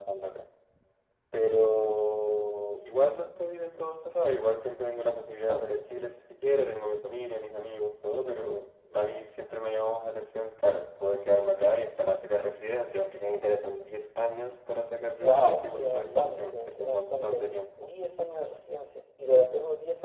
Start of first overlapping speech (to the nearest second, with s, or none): 15 s